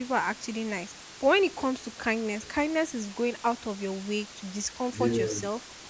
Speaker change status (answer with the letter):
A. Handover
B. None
B